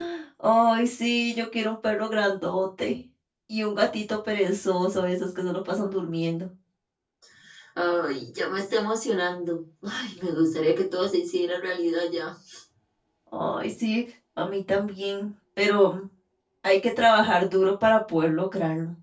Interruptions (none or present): none